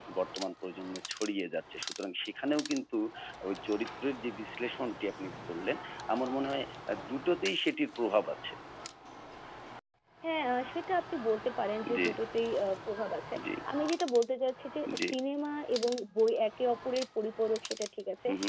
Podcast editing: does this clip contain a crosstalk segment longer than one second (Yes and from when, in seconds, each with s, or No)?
No